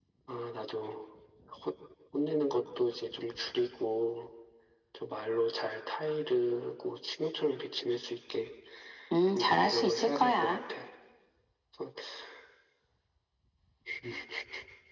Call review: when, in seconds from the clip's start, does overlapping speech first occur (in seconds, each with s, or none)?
9.3 s